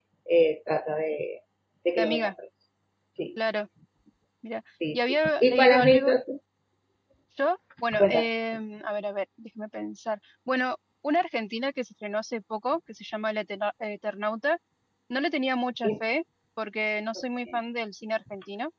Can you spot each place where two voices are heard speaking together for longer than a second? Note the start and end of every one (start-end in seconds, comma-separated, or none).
4.9-6.2